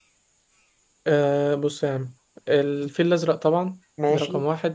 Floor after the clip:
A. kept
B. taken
A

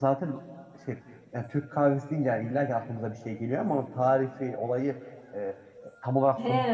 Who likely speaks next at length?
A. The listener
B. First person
A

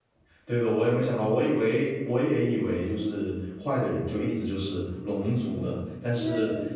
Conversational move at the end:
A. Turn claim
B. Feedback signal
B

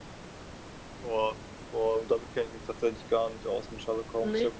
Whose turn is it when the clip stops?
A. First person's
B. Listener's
A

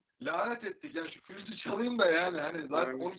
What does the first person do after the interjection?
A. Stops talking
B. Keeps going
B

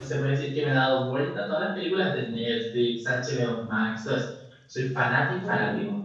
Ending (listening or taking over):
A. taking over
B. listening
A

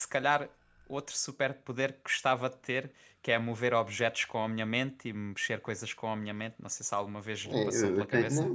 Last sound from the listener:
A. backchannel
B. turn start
B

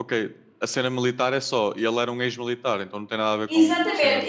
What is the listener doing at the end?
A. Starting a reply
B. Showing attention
A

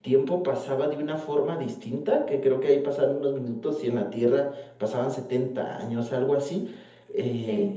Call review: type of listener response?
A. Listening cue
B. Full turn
B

